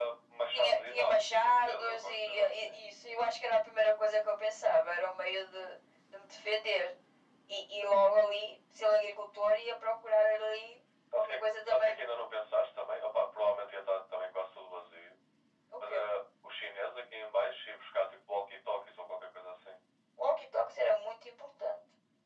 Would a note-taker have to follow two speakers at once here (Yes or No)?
Yes